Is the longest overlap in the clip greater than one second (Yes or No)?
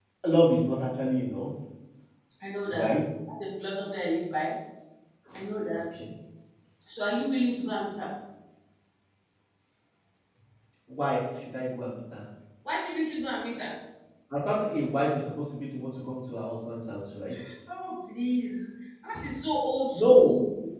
No